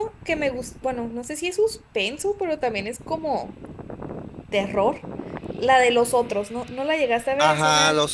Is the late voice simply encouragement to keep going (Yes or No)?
No